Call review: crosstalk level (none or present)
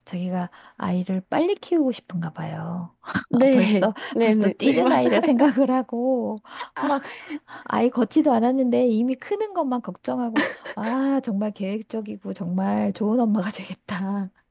present